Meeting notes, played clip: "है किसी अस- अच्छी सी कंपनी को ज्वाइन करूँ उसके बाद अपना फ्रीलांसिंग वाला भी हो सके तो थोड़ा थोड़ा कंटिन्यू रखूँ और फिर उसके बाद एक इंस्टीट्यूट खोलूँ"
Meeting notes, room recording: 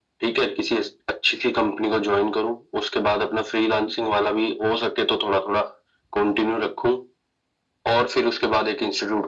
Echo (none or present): present